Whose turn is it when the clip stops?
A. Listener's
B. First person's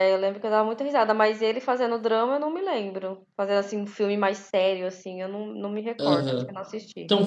A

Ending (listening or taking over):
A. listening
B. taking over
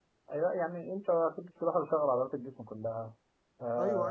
B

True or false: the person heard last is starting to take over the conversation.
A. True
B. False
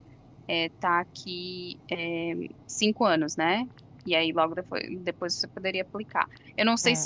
A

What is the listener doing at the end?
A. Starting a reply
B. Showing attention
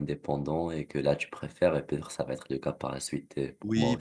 A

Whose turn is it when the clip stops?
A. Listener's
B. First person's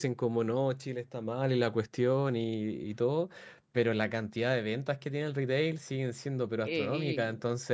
B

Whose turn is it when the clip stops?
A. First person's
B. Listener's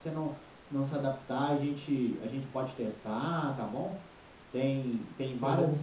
A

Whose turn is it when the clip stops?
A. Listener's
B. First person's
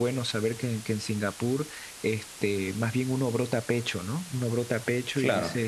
B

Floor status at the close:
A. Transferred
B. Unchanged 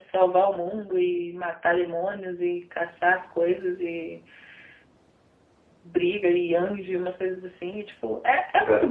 B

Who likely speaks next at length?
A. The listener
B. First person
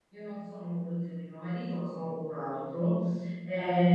B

